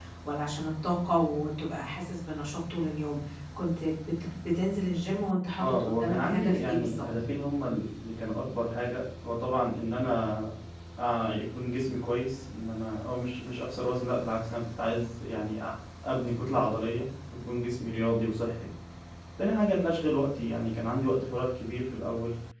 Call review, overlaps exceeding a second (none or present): present